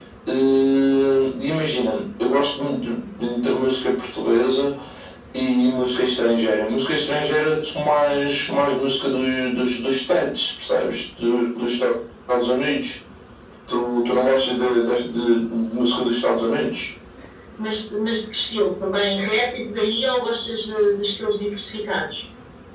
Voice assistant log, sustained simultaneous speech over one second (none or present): none